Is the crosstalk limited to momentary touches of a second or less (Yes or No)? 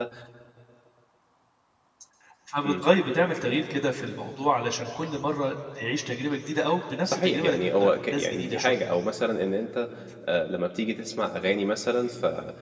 No